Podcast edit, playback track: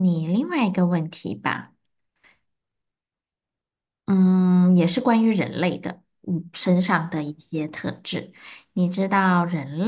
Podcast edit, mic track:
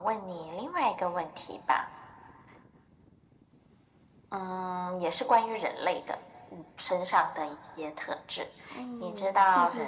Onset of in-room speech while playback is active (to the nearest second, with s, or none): 9 s